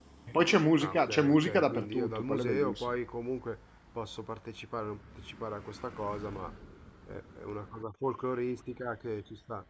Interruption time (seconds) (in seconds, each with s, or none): 0.8 s